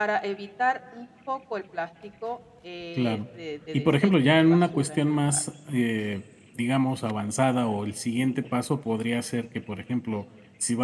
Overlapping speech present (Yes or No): Yes